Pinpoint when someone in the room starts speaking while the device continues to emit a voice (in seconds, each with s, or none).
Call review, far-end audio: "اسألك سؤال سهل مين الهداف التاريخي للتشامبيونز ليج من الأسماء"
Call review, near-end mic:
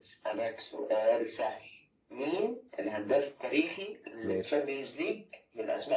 4.2 s